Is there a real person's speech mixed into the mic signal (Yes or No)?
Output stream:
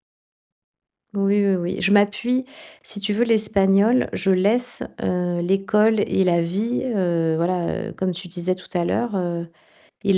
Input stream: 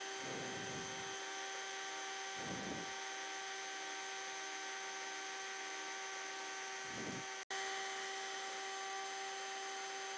No